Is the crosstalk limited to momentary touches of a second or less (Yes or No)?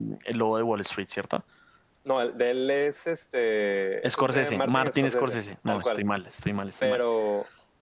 No